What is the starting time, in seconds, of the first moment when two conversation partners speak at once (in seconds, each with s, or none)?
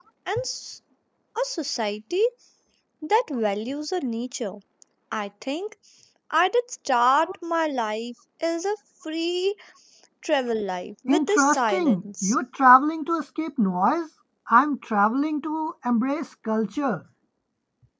11.1 s